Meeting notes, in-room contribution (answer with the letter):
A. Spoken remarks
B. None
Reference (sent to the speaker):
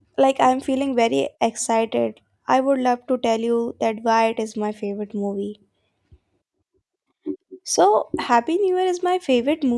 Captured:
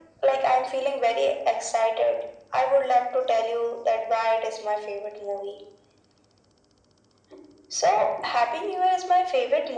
B